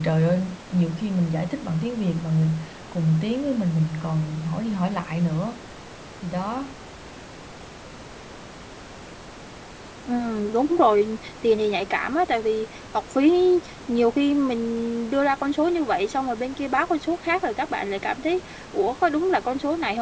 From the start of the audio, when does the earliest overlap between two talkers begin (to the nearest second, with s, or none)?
none